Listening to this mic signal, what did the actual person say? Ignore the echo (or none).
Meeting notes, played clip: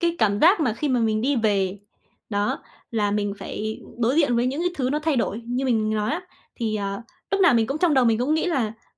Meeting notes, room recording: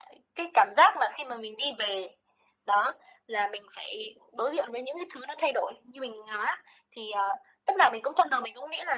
none